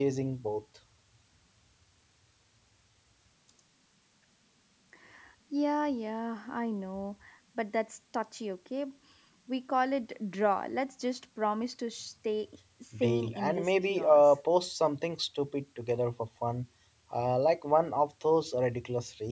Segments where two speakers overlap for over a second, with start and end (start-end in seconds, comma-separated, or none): 13.0-14.2